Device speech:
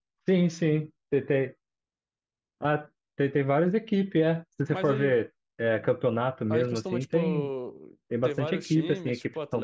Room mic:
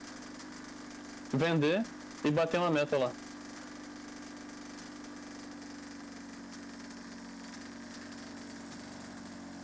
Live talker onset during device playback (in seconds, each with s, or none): 1.3 s